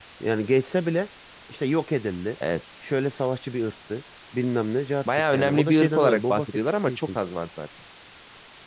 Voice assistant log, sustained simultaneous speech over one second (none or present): present